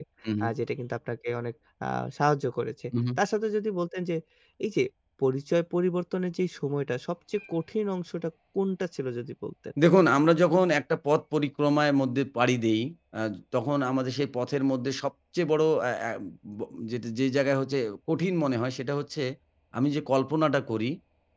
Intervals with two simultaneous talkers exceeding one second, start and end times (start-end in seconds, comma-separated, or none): none